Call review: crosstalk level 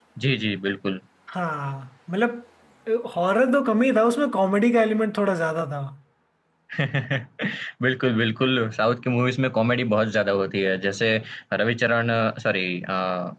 none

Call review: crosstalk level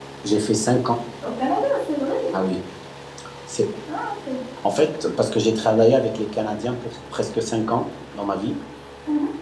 none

